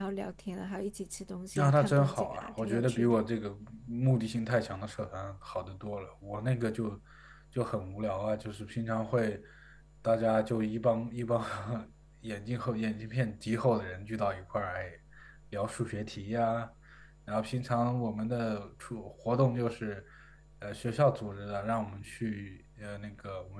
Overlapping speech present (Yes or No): Yes